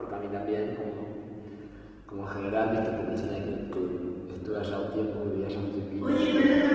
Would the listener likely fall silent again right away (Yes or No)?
No